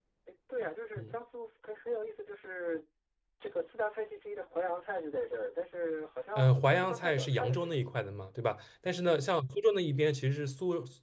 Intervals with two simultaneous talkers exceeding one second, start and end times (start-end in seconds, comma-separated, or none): 6.4-7.9